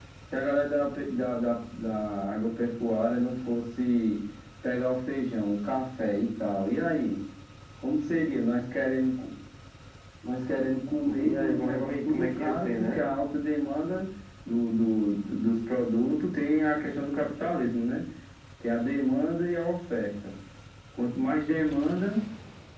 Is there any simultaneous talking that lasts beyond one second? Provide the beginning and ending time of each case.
11.1-13.0

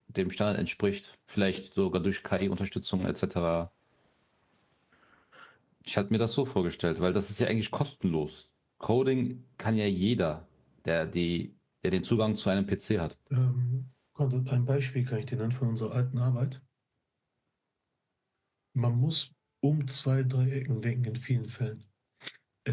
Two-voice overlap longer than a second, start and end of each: none

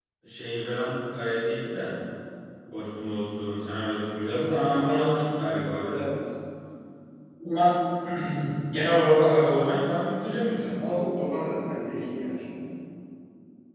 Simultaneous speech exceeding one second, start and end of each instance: none

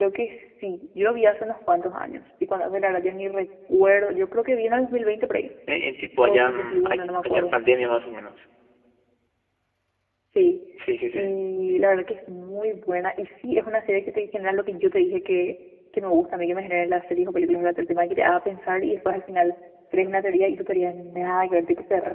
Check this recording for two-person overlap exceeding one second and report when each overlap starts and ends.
6.2-7.5

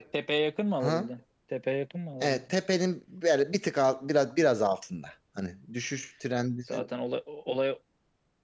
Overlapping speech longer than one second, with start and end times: none

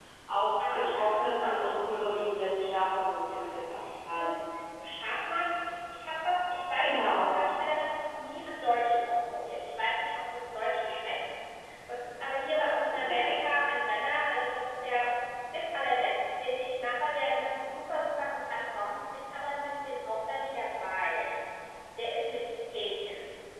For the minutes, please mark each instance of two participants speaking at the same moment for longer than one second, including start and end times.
0.7-3.5

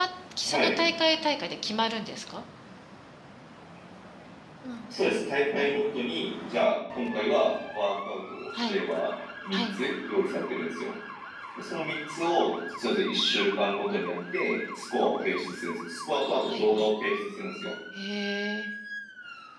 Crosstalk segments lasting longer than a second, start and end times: none

